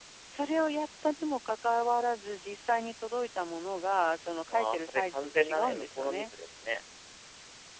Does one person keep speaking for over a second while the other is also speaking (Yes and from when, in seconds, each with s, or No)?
Yes, from 4.5 s